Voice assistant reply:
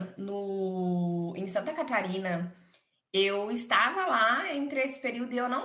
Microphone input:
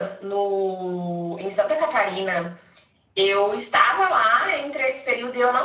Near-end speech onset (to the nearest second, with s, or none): none